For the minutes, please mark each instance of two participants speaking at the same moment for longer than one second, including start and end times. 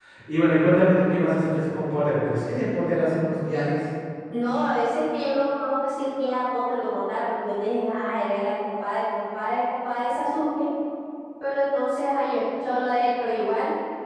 none

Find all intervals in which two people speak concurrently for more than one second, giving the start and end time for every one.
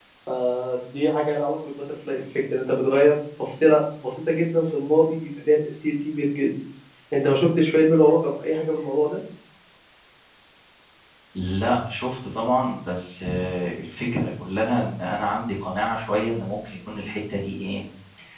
none

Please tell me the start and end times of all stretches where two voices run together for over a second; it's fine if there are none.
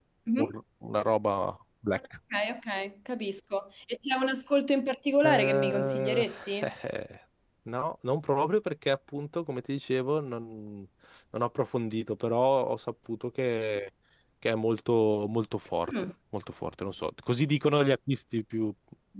5.2-6.7

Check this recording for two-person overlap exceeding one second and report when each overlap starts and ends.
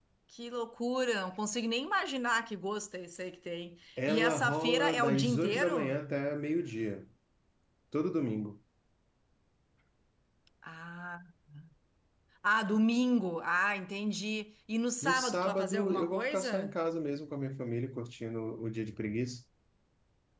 4.1-6.0, 15.0-16.8

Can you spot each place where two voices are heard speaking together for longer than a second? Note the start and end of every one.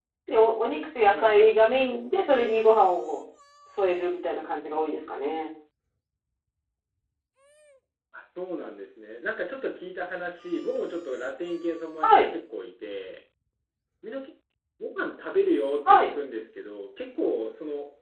none

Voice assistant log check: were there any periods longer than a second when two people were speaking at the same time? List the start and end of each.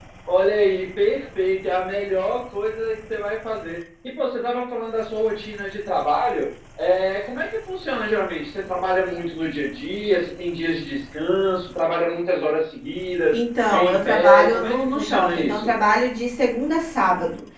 13.7-15.7

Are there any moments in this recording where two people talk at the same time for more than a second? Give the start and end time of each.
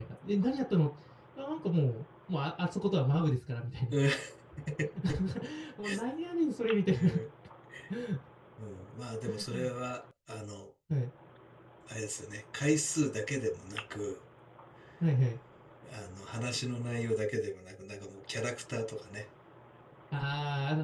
none

